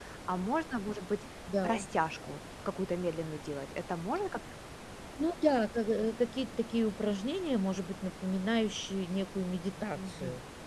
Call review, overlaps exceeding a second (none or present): none